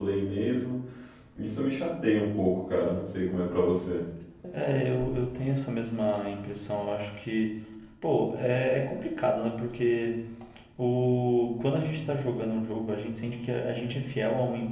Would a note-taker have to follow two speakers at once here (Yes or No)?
No